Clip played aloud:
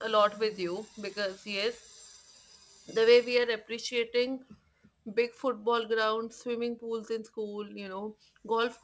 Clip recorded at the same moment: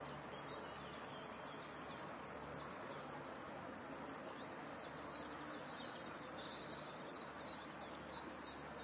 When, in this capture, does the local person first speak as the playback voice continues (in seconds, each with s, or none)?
none